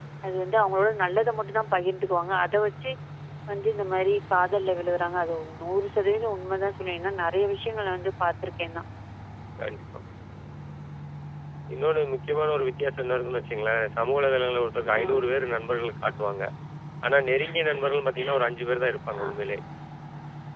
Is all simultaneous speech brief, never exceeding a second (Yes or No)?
Yes